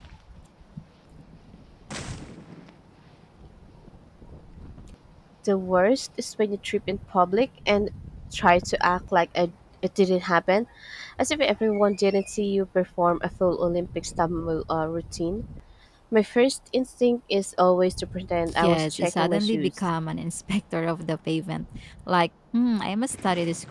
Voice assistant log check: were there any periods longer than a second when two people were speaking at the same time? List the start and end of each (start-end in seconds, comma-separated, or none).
18.6-19.8